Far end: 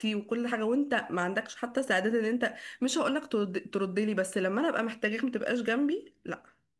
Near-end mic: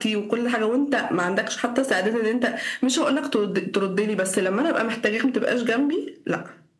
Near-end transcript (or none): none